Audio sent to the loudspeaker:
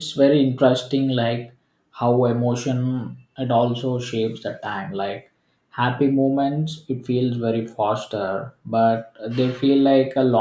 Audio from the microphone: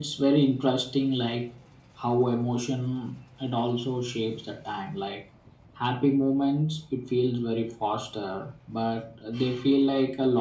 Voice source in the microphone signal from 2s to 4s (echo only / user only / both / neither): echo only